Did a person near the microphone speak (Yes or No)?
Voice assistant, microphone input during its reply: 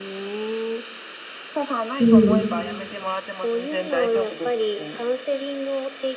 Yes